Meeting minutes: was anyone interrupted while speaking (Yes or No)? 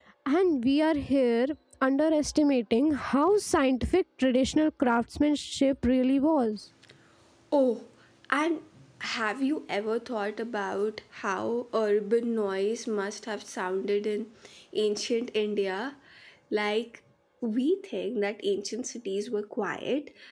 No